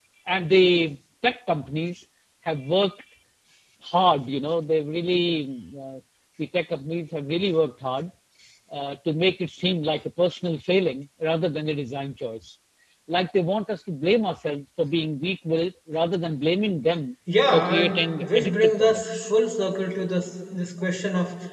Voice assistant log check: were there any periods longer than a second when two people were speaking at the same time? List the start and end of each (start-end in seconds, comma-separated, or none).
17.5-19.3